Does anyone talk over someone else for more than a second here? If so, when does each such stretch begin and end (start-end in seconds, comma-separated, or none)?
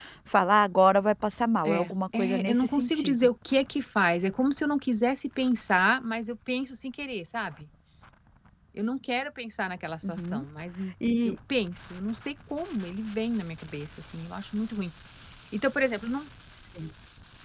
1.6-3.2